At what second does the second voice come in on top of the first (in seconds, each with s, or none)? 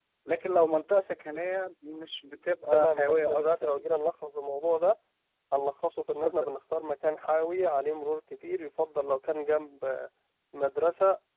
2.7 s